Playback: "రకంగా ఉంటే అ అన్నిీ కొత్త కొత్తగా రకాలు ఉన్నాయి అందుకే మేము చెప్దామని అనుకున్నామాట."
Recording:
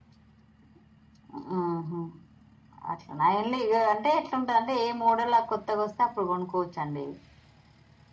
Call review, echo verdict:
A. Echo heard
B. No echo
B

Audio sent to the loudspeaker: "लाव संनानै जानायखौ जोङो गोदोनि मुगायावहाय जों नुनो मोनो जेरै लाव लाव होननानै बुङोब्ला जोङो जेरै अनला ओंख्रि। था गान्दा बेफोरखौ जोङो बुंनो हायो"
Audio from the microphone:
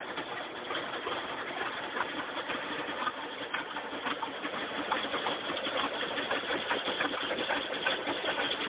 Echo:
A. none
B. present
A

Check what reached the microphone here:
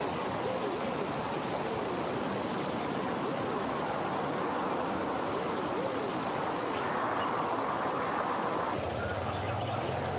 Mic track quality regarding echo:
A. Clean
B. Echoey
A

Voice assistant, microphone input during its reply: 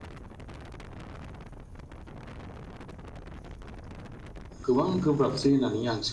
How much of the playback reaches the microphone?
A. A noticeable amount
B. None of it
B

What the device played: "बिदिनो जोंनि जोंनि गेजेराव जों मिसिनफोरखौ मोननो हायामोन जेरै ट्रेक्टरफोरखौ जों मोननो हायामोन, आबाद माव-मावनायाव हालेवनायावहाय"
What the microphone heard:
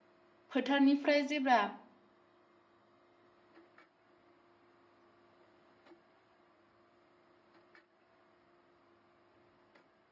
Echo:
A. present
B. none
B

